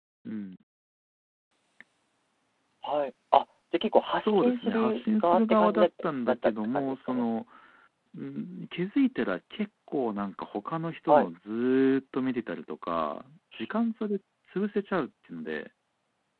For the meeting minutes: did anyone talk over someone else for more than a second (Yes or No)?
Yes